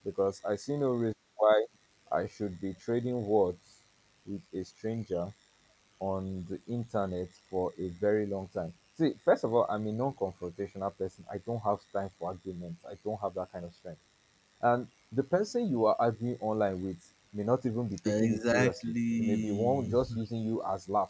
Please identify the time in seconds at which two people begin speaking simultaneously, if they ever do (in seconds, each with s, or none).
18.1 s